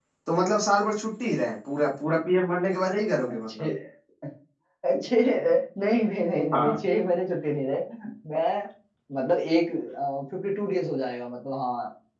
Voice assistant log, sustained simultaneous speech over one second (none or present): none